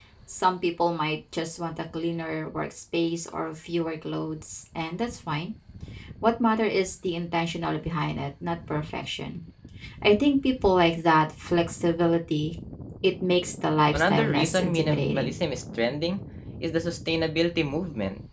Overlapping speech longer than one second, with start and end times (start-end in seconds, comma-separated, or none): 13.9-15.4